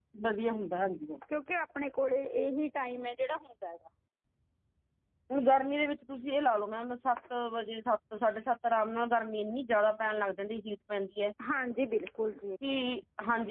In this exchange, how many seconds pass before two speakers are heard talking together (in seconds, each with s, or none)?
none